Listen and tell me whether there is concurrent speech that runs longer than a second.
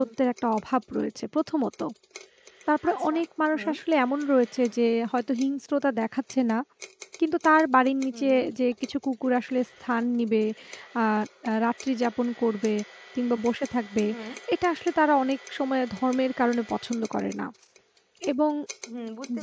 No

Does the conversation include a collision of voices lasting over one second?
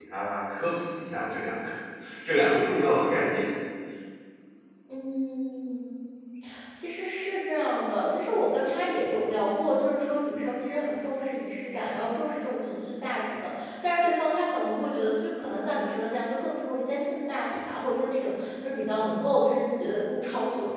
No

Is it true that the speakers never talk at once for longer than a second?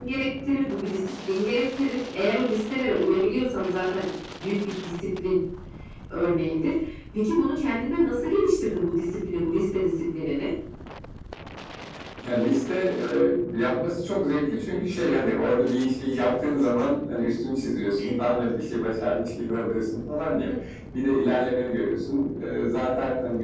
Yes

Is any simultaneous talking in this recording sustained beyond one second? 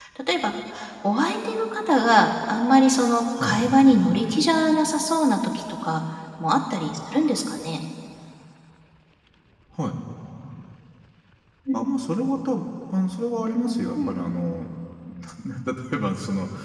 No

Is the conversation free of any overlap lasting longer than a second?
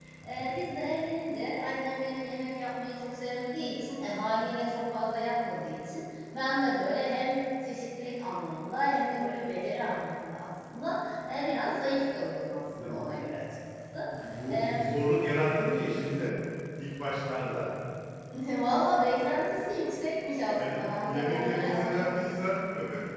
No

